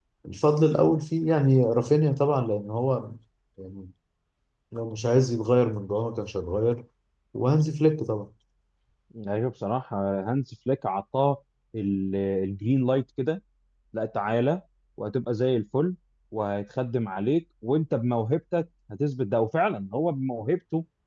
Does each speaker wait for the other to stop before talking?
Yes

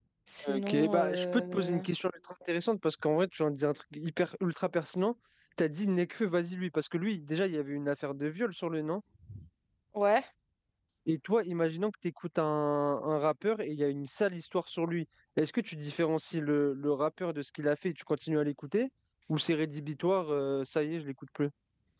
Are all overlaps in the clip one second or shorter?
No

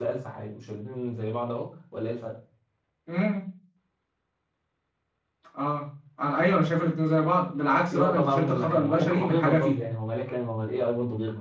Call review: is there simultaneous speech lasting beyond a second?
Yes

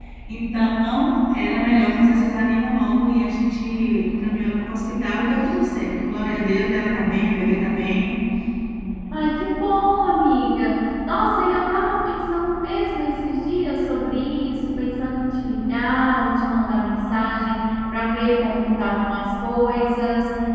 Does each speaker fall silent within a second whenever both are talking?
Yes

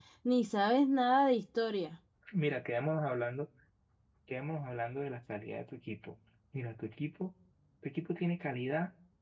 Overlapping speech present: No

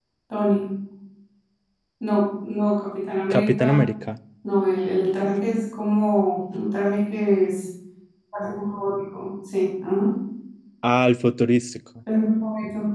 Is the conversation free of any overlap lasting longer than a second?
Yes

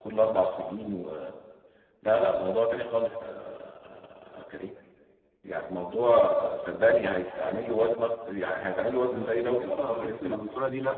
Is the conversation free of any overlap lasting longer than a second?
No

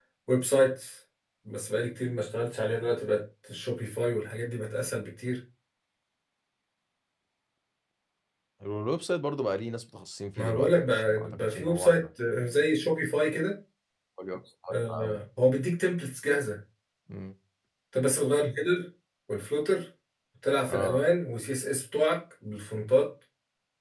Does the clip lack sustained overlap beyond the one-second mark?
No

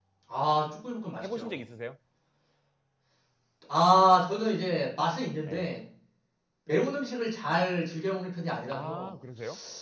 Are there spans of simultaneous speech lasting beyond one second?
No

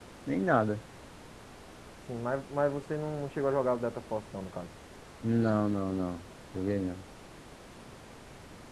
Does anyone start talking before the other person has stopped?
No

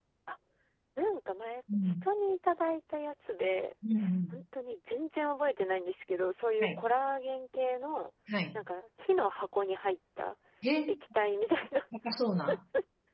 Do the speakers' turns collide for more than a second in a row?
No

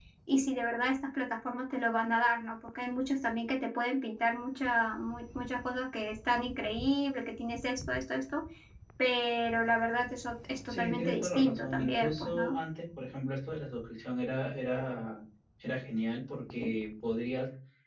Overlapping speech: Yes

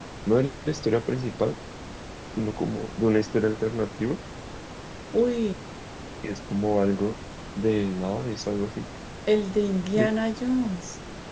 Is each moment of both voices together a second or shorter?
Yes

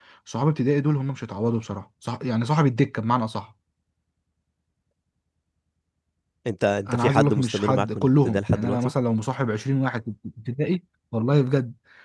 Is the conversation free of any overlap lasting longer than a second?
No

